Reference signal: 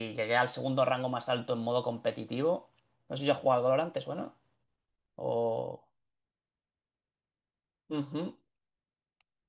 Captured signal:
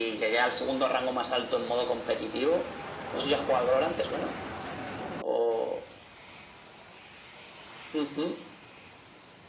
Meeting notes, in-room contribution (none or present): none